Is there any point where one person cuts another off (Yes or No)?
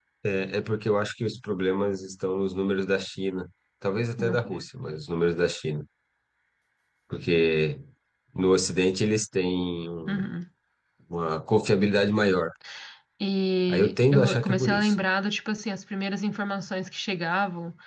Yes